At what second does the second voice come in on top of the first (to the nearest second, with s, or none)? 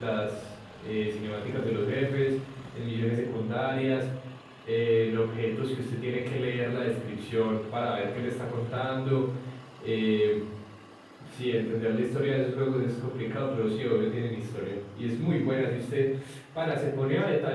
none